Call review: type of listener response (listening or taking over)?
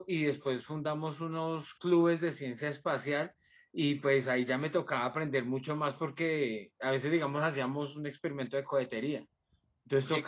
listening